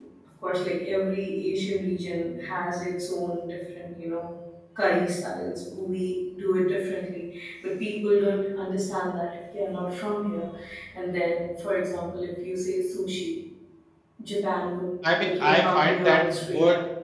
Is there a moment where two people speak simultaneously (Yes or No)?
Yes